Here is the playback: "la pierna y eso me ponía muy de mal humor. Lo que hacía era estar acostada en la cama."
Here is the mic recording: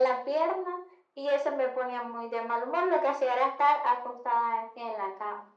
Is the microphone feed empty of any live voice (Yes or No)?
Yes